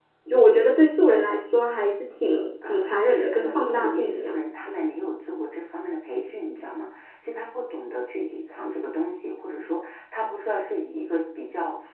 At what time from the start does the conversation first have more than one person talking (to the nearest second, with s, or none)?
3 s